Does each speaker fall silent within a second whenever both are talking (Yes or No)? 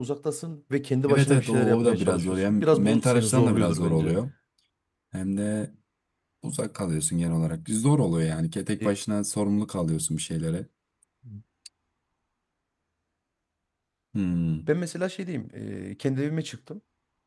No